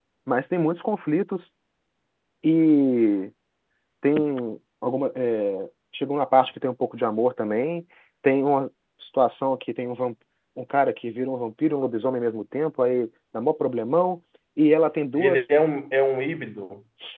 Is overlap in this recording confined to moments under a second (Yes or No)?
Yes